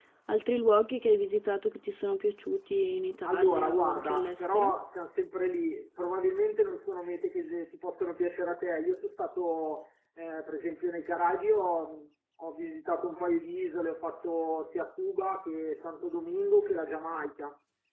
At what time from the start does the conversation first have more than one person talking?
3.2 s

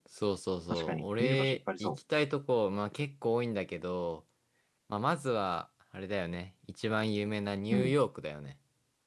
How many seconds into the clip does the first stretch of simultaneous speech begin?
0.7 s

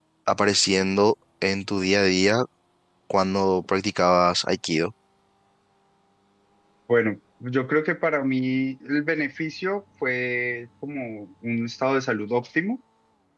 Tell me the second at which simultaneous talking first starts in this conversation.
none

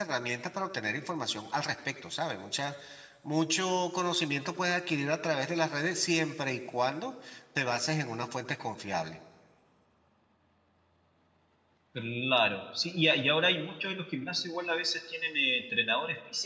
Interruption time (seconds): none

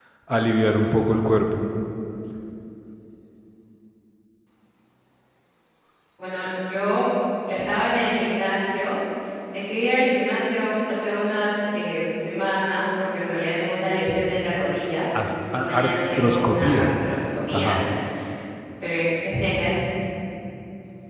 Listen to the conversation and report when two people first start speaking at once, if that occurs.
15.5 s

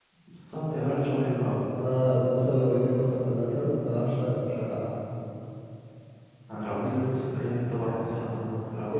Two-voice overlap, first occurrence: none

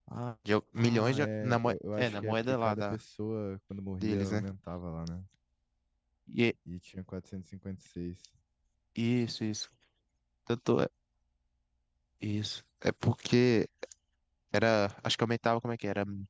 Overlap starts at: 0.8 s

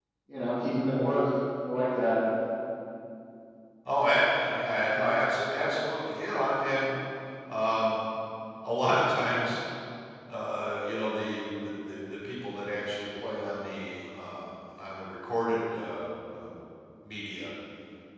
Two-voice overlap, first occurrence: none

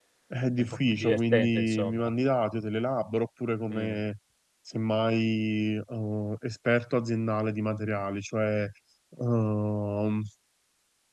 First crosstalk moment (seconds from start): 0.6 s

